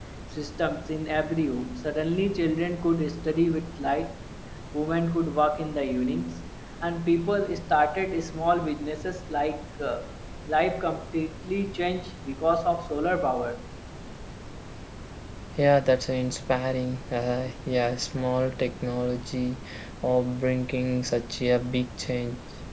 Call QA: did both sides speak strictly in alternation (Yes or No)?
Yes